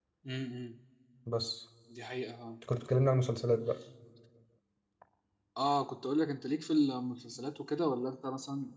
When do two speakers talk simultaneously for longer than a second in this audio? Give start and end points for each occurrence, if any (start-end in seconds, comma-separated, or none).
none